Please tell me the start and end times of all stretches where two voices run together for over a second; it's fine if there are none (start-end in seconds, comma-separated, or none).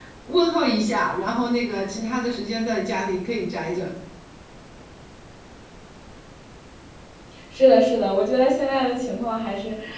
none